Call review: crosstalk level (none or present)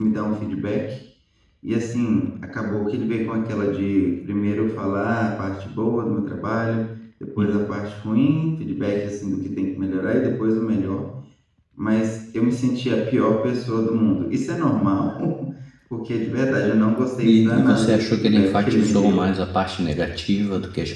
present